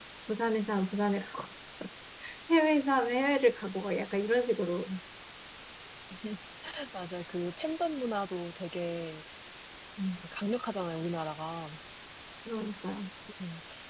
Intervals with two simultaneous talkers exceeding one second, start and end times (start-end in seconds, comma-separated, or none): none